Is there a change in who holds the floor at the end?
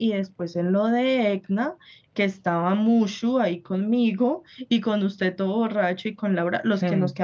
No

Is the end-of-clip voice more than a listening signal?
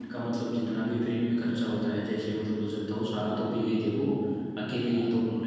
No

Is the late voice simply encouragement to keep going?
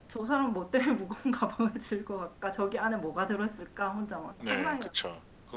No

